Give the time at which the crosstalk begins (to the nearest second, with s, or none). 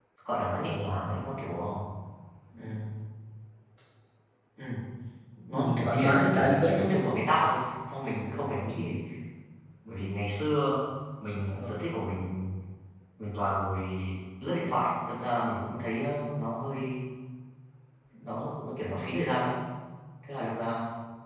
6 s